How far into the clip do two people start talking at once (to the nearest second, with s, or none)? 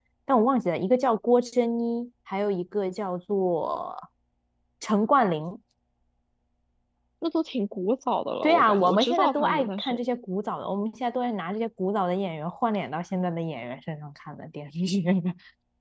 8 s